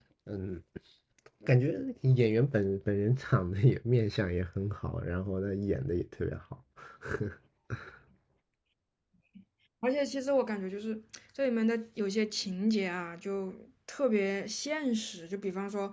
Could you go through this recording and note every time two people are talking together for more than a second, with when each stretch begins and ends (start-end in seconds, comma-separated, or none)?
none